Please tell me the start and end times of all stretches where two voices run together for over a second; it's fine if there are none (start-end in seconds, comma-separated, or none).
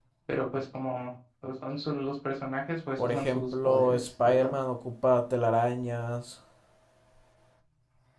3.0-4.6